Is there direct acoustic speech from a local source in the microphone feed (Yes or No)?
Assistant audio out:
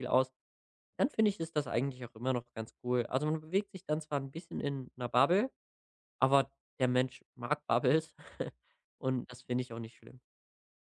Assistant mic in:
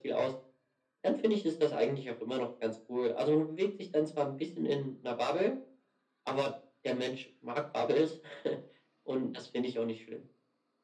No